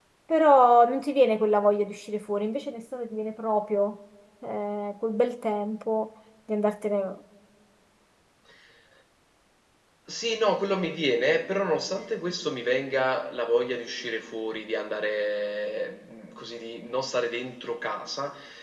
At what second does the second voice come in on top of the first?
none

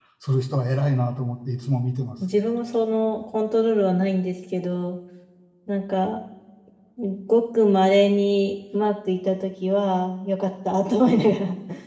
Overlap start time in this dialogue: none

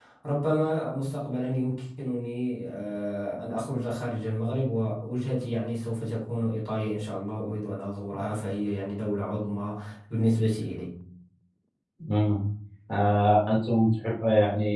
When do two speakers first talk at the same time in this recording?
none

